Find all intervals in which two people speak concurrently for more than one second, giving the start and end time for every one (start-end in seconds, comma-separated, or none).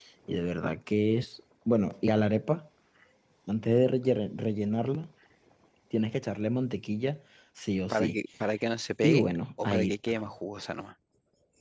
none